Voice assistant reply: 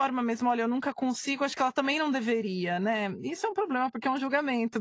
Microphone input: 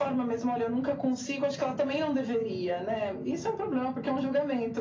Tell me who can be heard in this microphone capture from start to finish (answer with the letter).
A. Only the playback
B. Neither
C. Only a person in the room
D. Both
A